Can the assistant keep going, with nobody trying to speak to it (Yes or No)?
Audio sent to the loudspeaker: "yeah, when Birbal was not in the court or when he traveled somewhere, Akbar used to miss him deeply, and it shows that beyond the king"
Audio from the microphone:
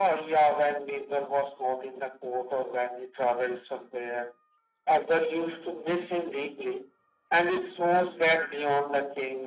Yes